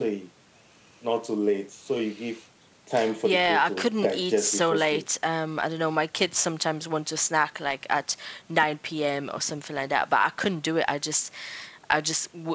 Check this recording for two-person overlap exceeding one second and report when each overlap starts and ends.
3.2-5.0

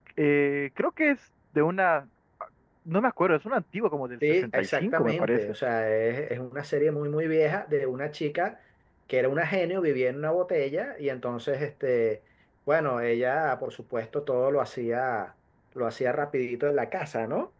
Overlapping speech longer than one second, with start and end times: 4.3-5.6

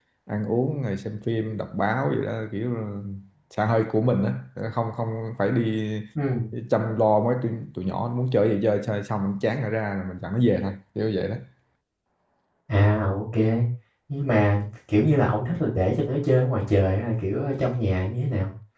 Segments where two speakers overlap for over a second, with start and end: none

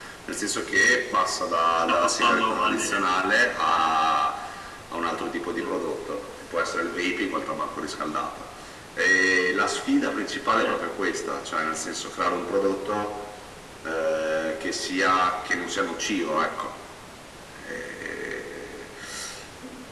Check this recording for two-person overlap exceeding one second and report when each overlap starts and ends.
1.8-3.0

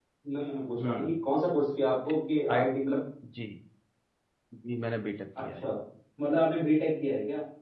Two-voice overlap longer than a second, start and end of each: none

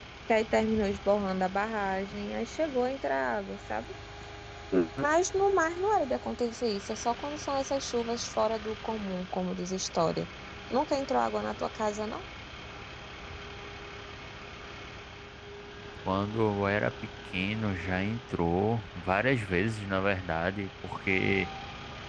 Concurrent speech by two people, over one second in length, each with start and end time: none

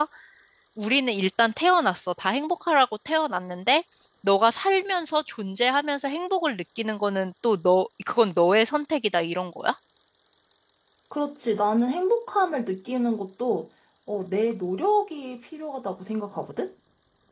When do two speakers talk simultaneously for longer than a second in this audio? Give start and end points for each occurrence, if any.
none

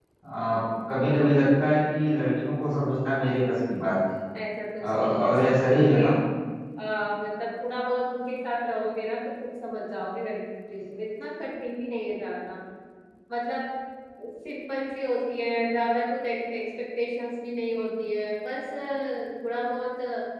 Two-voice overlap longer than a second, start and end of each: 4.8-6.0

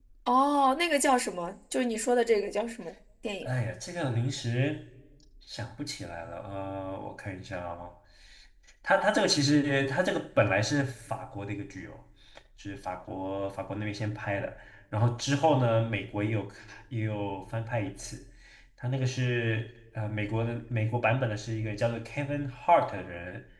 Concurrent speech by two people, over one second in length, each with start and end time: none

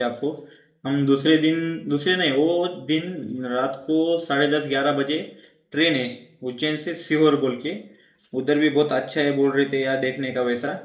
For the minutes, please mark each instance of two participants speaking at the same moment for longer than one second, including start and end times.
none

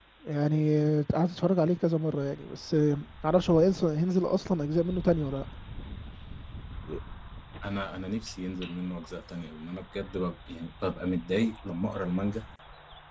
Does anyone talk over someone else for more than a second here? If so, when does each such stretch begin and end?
none

